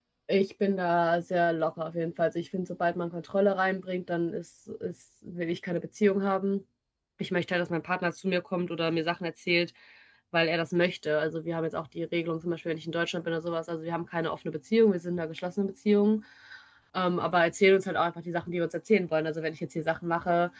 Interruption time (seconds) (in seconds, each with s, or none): none